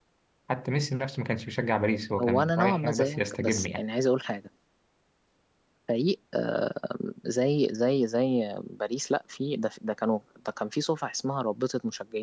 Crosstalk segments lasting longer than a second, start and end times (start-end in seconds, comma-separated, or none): 2.2-3.8